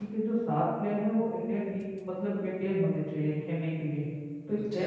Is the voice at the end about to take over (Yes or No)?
Yes